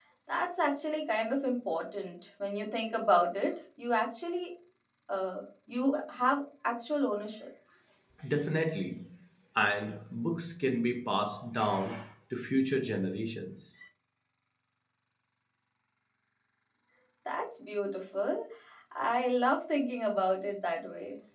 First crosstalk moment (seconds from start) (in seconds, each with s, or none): none